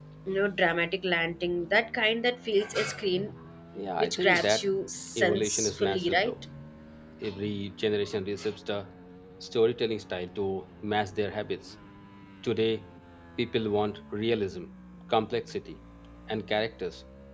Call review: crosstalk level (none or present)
present